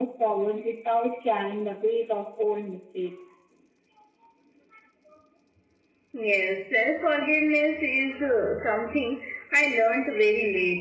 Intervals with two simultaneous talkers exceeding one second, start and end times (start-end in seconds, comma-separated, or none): none